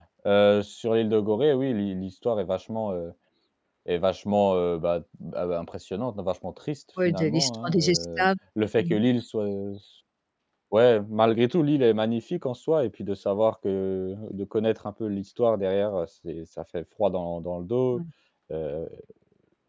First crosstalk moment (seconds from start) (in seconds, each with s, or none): 7.0 s